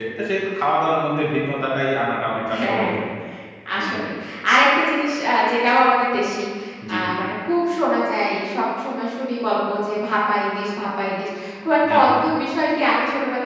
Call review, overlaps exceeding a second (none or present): none